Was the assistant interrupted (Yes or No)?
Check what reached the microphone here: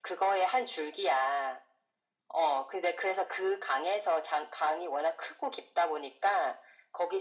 No